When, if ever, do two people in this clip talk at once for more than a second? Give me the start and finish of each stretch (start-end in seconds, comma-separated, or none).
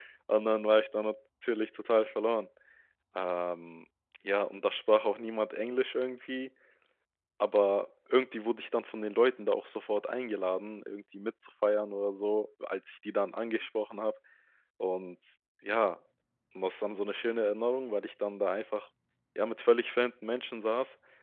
none